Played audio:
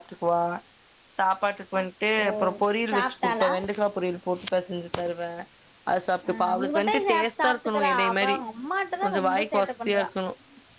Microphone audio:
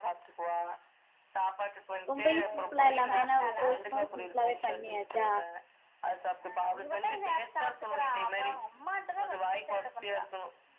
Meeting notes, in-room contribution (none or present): present